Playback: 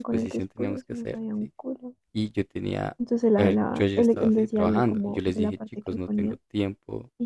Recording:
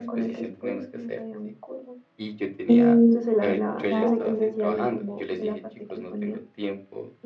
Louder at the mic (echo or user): user